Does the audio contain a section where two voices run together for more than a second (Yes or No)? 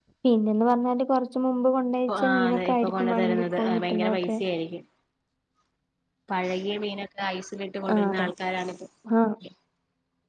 Yes